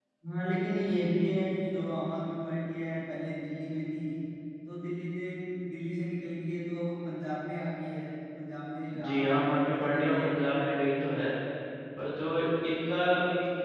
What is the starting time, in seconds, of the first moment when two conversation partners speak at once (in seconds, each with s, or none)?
8.9 s